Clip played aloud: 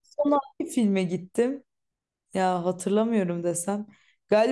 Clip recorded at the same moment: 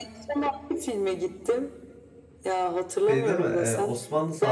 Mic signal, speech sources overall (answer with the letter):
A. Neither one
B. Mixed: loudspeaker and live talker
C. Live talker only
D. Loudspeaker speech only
B